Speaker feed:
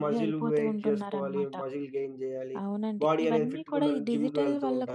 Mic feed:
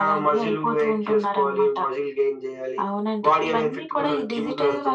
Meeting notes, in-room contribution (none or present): none